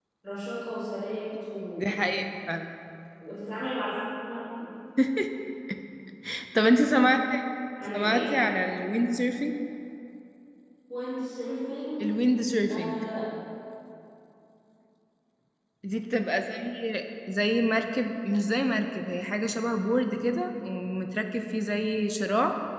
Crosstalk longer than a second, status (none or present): none